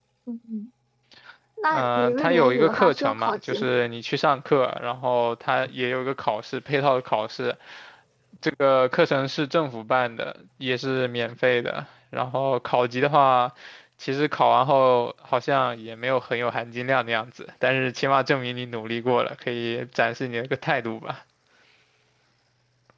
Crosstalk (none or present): present